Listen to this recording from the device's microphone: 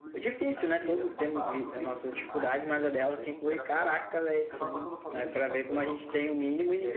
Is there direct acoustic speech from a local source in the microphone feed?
Yes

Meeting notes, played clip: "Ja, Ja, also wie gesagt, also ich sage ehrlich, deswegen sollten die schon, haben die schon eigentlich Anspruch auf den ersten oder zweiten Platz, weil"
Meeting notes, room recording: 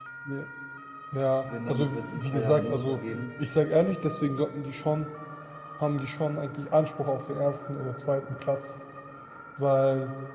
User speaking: Yes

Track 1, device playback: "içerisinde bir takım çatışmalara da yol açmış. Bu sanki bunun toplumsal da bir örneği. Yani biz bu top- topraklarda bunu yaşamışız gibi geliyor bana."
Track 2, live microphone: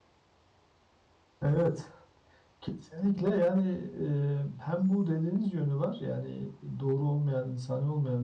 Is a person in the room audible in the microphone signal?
Yes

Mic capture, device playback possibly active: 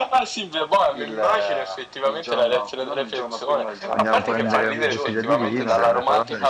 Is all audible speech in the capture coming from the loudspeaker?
No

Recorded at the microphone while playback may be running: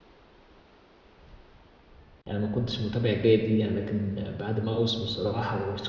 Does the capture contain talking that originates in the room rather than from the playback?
Yes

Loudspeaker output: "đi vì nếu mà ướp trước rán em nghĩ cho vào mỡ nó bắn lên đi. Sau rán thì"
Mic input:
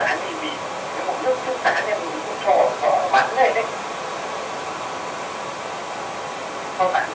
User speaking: No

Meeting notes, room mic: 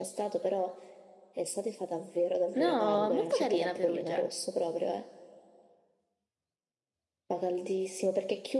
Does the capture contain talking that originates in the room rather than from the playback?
Yes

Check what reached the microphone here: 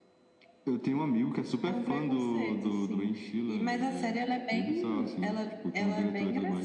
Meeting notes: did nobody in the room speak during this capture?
Yes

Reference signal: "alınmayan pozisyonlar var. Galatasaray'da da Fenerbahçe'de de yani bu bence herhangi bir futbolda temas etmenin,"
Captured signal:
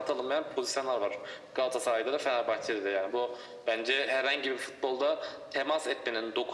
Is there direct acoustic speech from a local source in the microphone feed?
No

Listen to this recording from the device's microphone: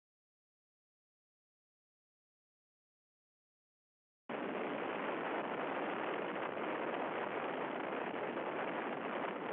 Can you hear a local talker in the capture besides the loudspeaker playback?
No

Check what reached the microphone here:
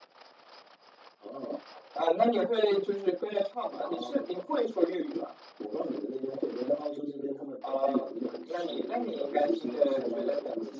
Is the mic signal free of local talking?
Yes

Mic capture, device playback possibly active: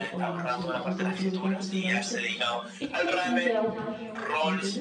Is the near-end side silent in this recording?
No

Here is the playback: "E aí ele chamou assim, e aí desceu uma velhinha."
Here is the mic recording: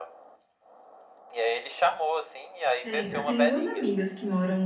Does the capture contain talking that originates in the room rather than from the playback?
Yes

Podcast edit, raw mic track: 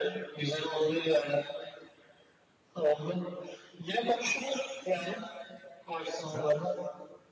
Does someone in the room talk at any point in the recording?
Yes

